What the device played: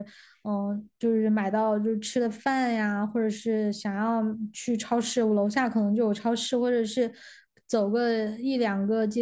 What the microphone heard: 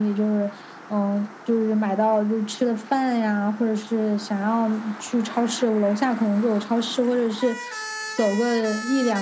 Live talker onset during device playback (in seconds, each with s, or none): none